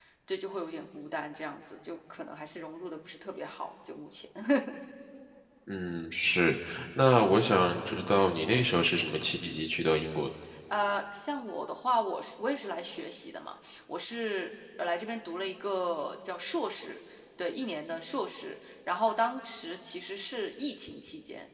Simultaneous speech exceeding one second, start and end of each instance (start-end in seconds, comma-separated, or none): none